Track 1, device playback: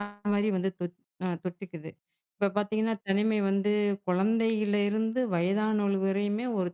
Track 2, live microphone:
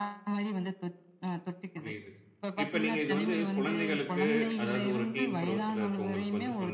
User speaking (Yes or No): Yes